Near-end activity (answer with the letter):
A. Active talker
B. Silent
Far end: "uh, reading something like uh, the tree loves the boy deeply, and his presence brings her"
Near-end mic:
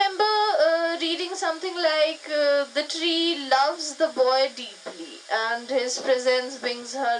B